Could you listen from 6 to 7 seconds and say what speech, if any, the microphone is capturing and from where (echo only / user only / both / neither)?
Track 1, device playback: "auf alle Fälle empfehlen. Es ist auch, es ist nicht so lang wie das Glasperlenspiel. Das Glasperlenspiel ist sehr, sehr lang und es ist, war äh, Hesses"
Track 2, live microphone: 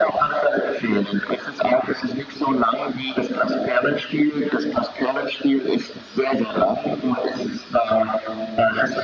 echo only